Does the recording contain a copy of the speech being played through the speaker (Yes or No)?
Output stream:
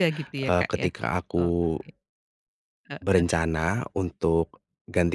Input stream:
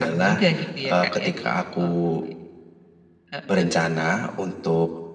Yes